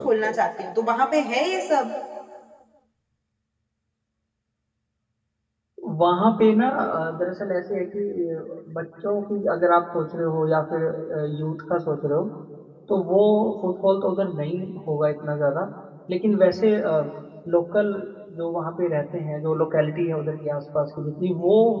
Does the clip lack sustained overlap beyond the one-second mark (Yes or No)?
Yes